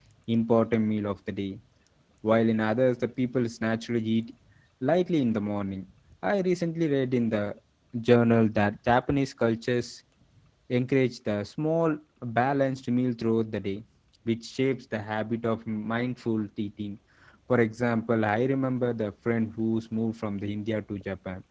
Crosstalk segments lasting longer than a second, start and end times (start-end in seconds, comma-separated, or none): none